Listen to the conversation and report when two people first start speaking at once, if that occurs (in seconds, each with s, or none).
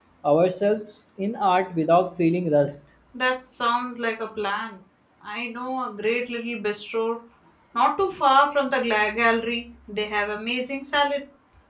none